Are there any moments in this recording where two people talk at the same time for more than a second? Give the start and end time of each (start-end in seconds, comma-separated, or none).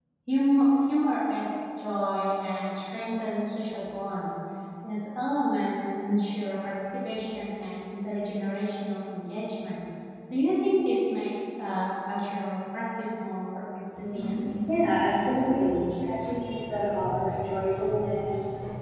none